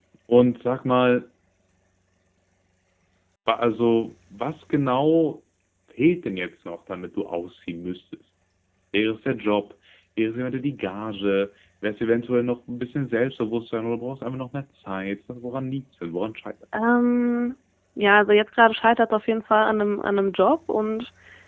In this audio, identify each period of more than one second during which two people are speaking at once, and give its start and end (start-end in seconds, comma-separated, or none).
none